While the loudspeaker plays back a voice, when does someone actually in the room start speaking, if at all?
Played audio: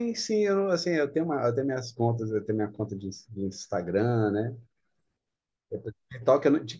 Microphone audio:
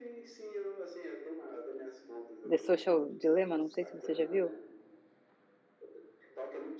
2.5 s

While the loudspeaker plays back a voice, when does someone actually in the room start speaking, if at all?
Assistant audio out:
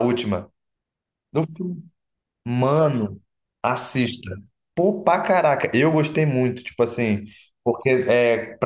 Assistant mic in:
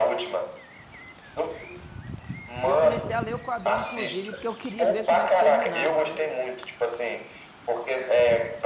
2.6 s

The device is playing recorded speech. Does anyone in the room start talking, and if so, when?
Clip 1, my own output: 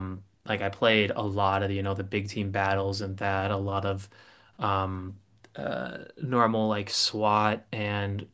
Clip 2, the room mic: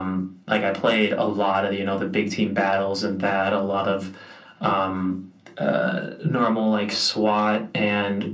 none

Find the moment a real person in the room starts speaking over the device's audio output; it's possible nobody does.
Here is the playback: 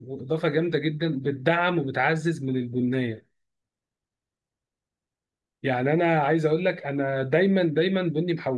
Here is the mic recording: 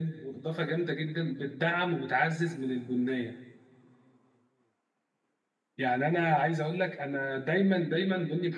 none

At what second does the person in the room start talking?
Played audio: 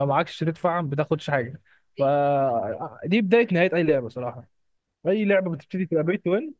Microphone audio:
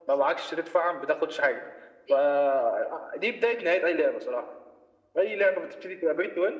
none

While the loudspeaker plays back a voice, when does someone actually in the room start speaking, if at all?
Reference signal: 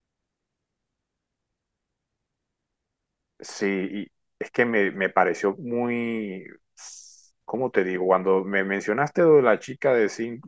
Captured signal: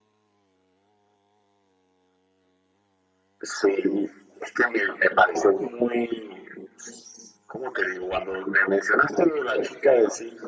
none

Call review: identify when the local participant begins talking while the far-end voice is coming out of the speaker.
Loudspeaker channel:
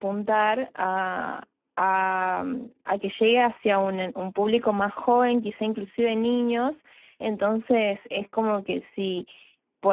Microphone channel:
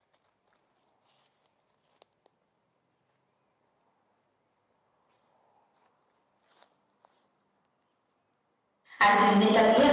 9.0 s

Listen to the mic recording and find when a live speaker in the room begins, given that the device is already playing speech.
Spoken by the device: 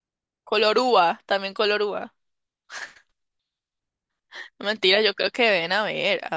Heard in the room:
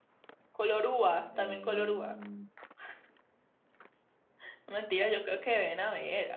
1.3 s

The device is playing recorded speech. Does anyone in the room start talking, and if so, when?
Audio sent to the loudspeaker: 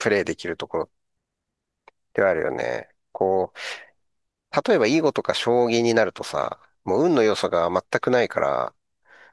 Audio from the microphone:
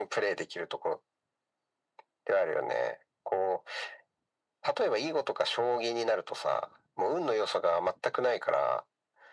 none

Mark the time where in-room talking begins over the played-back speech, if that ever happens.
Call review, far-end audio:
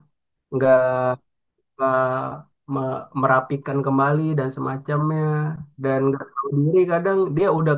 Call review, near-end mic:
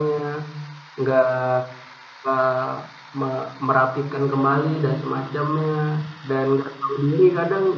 none

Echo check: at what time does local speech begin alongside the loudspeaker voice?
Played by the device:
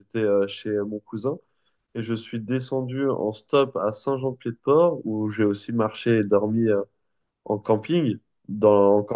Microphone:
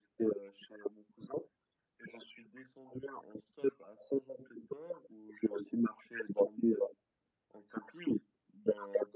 none

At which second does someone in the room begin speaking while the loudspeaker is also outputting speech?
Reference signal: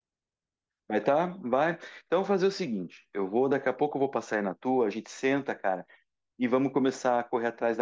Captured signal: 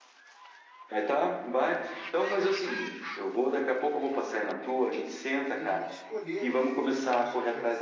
5.4 s

